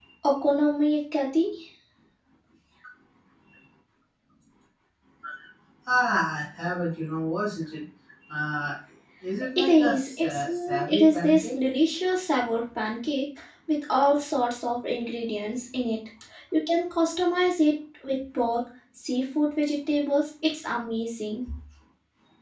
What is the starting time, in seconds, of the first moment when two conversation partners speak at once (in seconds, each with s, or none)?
9.6 s